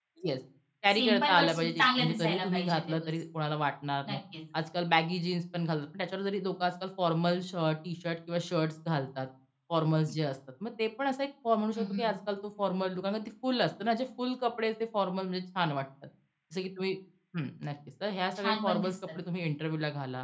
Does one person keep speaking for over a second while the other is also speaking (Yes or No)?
Yes